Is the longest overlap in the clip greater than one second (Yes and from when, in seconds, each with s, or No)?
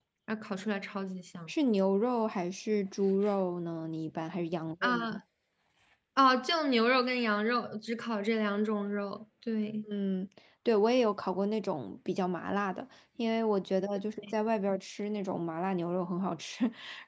No